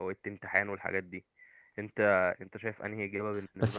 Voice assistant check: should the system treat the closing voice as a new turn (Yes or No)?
Yes